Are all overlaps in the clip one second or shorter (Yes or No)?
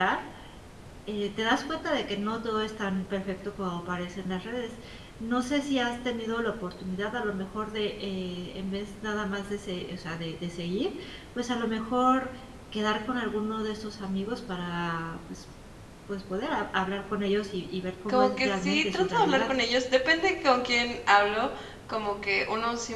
No